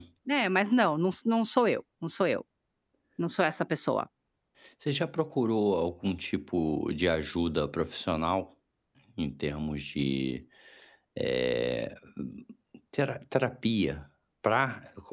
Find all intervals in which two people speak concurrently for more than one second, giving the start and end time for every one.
none

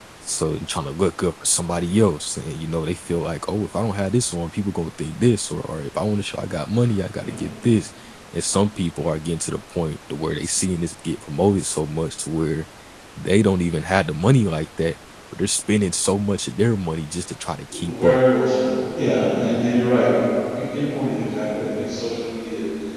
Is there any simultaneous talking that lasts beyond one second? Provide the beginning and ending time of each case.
none

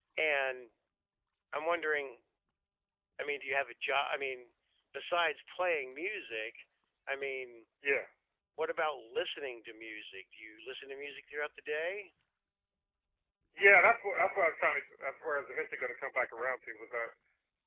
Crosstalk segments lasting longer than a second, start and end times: none

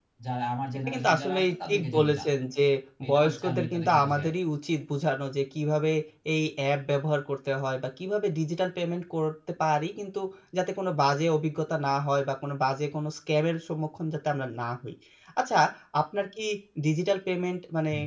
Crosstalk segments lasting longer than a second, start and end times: 0.9-2.2, 3.1-4.3

